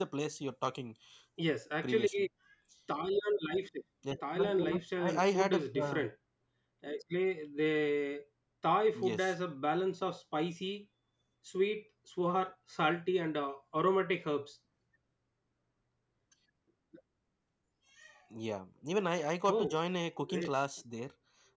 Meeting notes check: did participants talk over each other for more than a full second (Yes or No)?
Yes